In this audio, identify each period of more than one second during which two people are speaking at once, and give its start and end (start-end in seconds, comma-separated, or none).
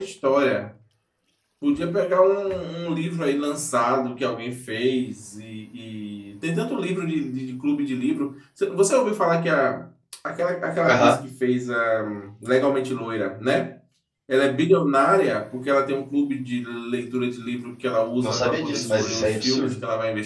18.2-19.8